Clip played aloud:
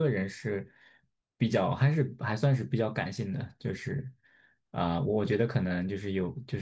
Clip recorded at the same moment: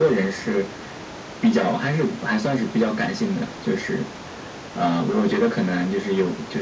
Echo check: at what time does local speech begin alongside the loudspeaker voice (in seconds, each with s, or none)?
none